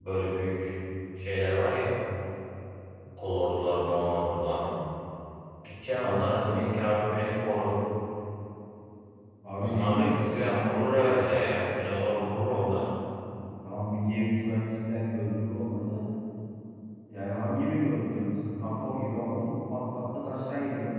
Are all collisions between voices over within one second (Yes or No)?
No